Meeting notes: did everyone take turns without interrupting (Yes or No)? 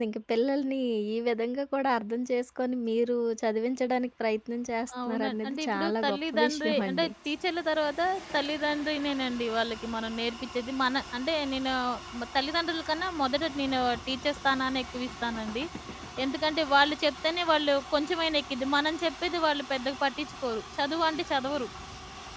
No